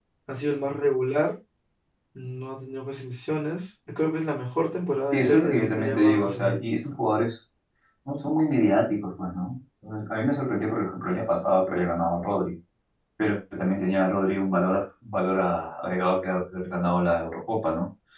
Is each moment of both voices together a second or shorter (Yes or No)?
No